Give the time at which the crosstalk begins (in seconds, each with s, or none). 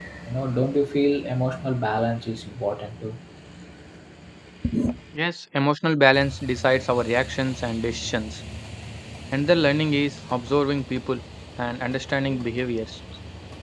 none